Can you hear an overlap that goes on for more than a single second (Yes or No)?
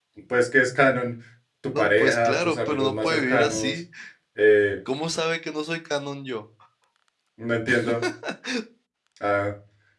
Yes